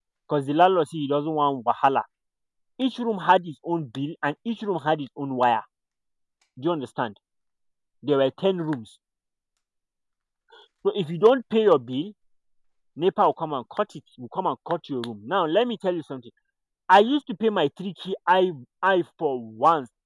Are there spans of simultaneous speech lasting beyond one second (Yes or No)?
No